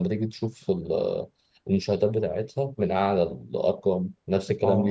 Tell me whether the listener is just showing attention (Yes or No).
No